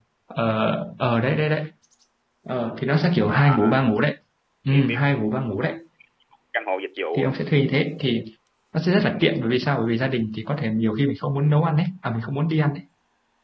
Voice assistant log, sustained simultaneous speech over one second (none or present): none